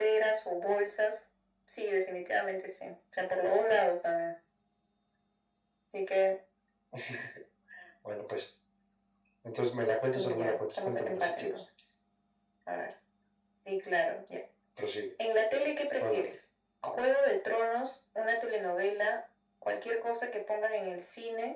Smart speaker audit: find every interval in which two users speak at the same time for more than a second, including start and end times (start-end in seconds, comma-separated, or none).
10.1-11.6